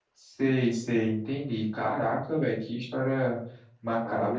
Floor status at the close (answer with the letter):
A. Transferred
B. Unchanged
A